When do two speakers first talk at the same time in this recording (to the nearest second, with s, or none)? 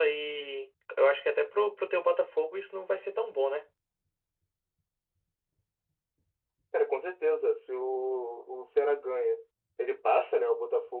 none